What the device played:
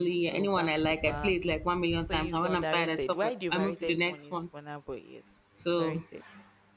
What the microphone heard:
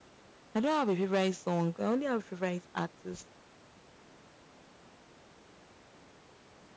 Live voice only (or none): I don't have a favorite song. I only have favorite artists,